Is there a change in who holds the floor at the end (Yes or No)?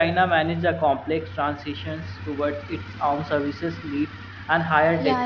Yes